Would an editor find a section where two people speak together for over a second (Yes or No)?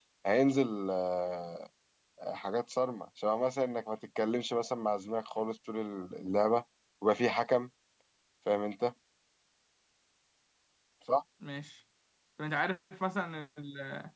No